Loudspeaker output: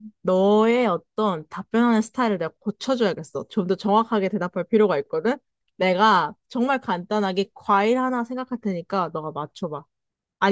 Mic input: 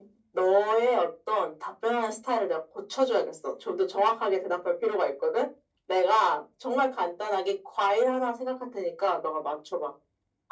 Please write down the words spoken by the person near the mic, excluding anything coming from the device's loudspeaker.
none

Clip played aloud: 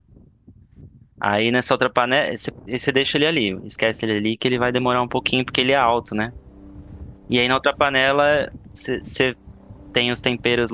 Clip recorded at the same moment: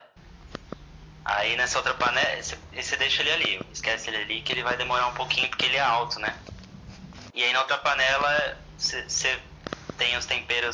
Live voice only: none

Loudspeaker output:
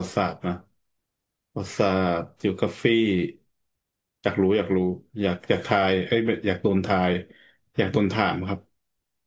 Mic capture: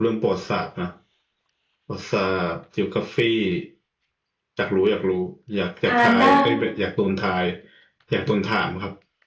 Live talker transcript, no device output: ทานได้

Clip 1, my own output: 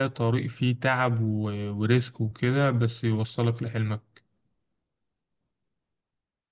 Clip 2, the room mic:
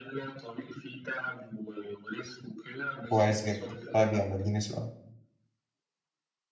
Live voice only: كويس جدا طيب يلا اديني سؤال

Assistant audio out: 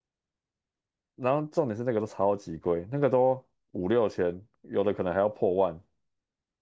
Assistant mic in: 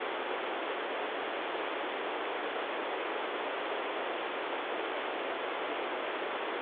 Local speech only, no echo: none

